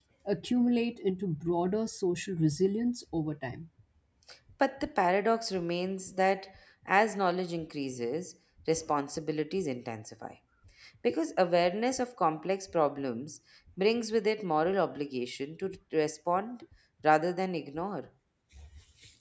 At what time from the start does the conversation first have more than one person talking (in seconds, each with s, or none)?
none